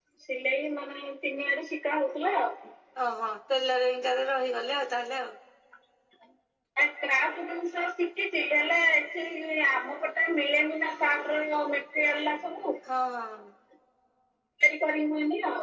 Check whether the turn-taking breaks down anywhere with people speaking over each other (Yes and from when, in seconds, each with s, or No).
No